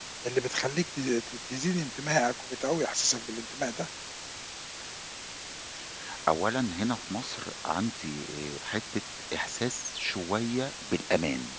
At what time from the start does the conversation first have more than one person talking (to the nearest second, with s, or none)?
none